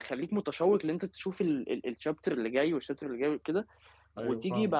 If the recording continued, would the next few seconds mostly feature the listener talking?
No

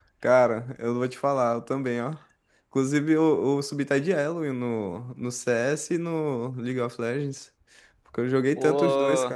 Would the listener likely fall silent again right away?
No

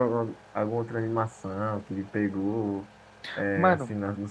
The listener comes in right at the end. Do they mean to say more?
No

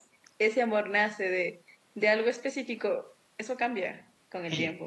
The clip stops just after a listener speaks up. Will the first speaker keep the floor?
No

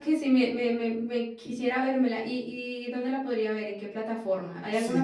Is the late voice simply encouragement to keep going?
No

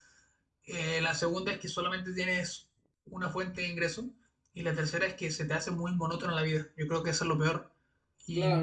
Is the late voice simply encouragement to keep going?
No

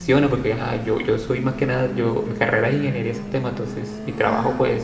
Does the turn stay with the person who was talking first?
Yes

